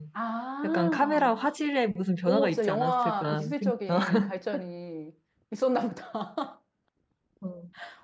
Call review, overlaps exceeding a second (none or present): present